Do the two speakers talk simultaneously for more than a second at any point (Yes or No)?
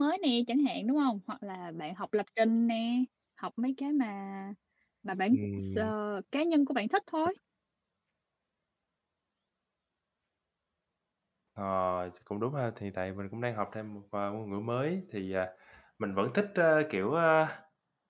No